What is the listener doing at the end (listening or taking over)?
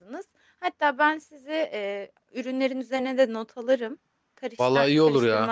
taking over